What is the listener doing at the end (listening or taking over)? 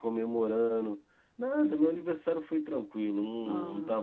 listening